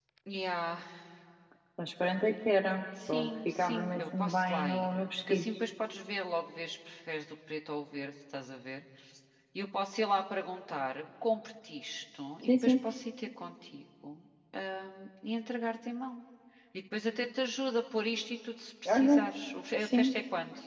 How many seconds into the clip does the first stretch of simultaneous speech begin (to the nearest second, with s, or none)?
3 s